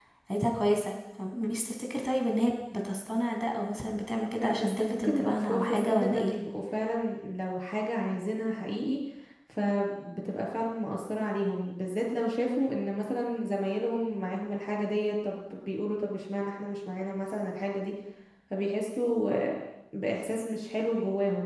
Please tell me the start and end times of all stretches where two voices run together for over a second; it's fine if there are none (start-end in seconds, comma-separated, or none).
4.4-6.3